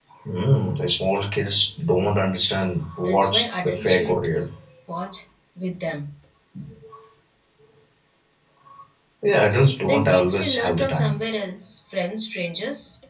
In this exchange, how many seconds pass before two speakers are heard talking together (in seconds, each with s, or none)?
3.0 s